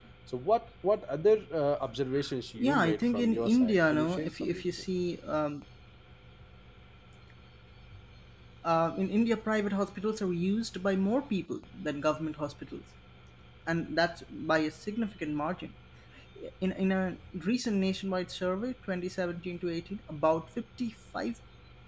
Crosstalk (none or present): present